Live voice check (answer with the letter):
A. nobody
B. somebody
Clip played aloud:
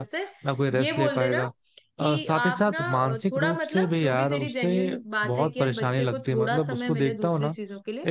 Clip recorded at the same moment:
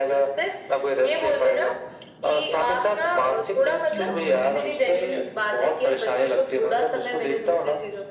B